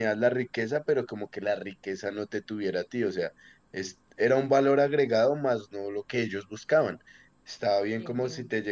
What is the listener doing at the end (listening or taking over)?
listening